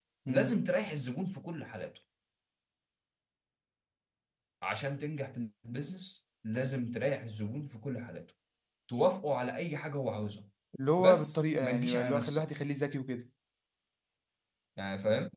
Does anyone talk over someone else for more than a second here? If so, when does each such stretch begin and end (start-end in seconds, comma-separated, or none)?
11.0-12.4